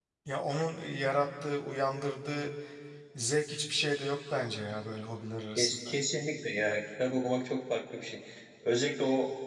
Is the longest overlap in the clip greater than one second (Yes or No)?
No